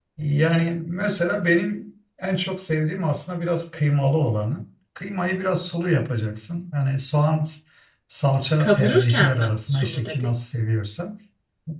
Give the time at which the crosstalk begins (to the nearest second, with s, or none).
9 s